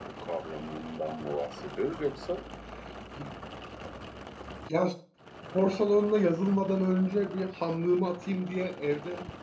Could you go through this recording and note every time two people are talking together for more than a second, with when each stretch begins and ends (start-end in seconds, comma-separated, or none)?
none